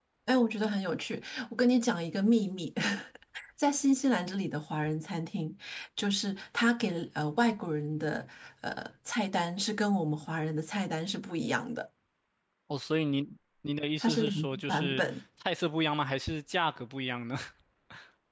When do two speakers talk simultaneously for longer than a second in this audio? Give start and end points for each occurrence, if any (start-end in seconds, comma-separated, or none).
14.0-15.2